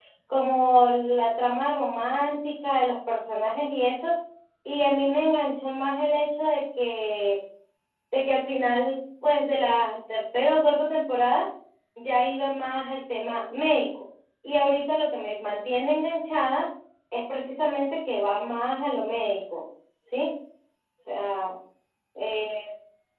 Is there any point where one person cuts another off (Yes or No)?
No